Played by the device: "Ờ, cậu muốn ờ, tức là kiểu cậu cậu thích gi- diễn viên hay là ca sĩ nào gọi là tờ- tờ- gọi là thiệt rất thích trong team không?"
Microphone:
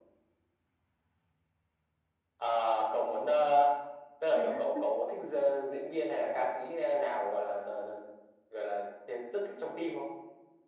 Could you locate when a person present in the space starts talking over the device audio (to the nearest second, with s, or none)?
4 s